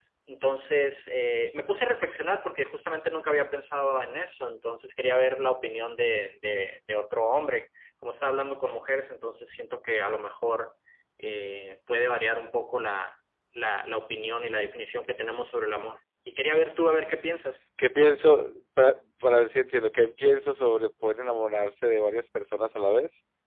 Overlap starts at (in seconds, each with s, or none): none